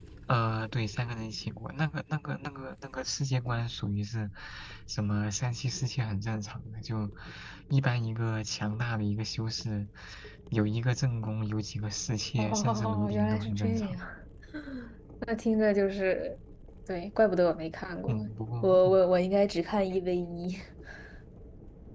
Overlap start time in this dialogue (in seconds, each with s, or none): 12.4 s